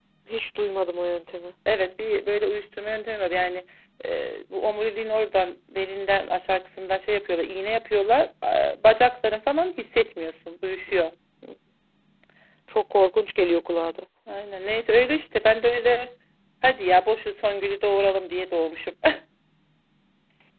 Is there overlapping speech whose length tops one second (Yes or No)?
No